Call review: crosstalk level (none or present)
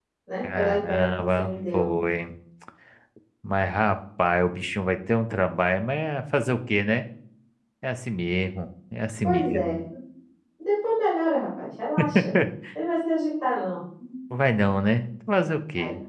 present